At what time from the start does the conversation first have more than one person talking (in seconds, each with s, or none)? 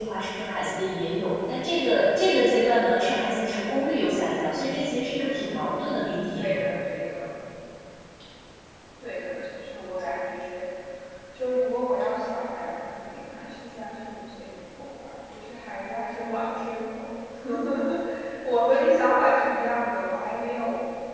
5.2 s